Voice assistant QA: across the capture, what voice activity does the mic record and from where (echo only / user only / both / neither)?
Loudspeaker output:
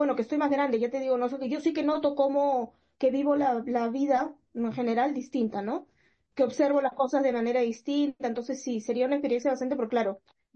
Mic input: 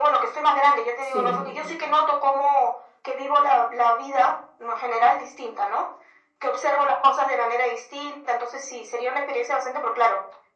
both